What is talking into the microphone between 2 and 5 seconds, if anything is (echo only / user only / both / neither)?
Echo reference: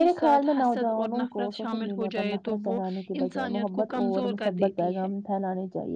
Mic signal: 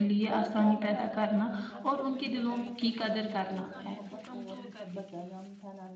both